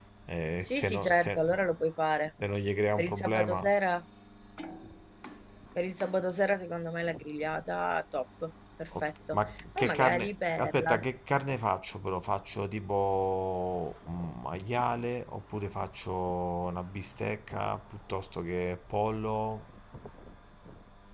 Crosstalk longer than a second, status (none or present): present